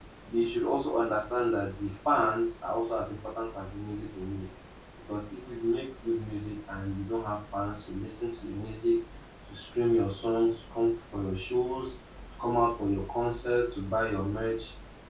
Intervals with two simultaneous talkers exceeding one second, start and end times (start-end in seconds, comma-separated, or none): none